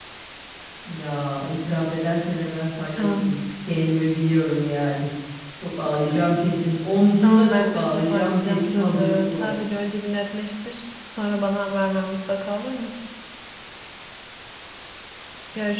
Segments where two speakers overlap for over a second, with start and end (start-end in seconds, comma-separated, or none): 7.2-9.5